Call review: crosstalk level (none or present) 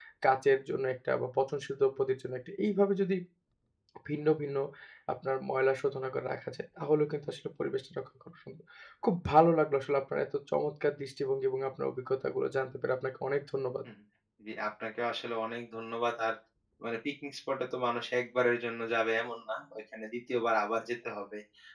none